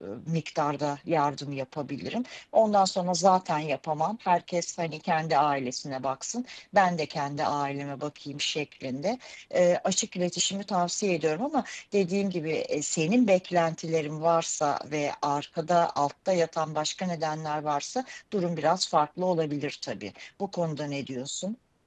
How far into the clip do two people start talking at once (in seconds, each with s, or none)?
none